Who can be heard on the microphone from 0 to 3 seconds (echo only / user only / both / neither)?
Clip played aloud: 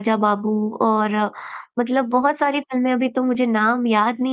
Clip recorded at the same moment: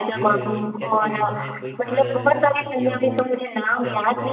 both